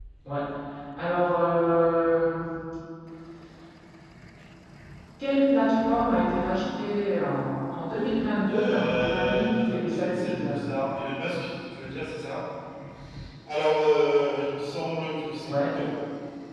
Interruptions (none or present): present